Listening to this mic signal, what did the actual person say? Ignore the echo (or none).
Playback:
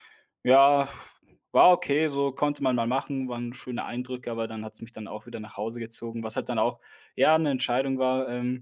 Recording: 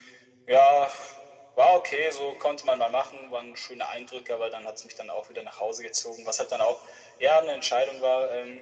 none